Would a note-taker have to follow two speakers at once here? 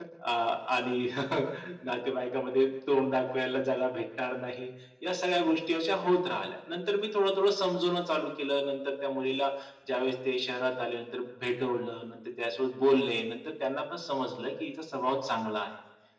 No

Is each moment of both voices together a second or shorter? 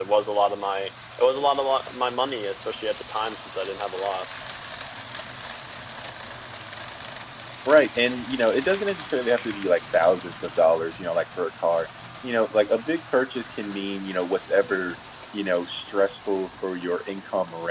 Yes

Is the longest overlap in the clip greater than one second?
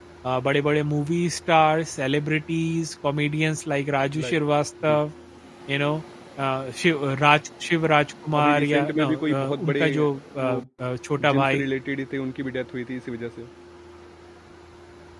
Yes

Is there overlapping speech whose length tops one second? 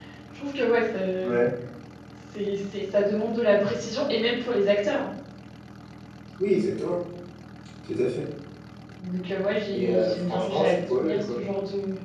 Yes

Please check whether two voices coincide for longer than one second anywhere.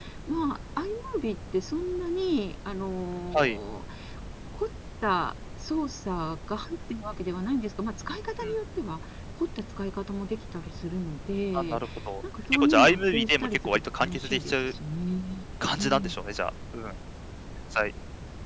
Yes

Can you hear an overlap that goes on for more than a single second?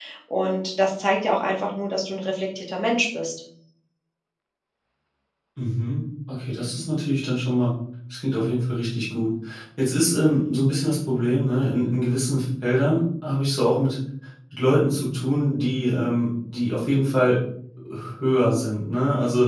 No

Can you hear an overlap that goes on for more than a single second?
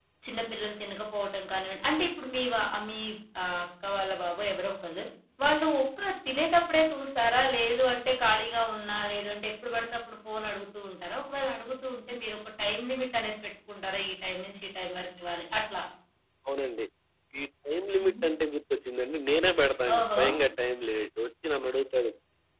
No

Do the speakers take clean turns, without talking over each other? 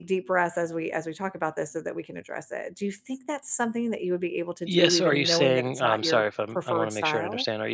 No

